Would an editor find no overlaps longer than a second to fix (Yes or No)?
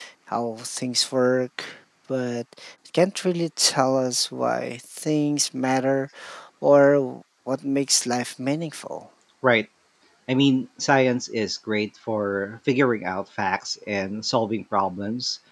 Yes